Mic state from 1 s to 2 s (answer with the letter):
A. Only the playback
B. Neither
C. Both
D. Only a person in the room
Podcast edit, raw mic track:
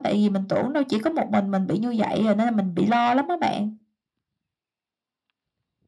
A